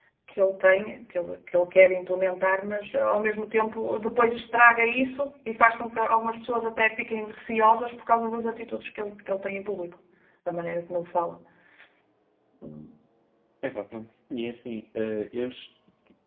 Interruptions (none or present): none